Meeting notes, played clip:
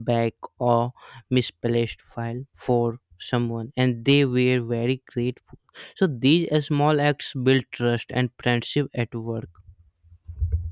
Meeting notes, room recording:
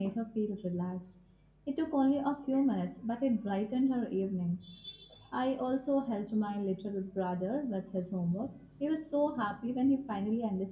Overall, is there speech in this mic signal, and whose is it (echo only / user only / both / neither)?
user only